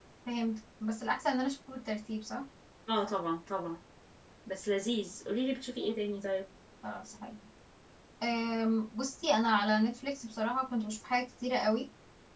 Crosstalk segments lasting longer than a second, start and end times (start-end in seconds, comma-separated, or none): none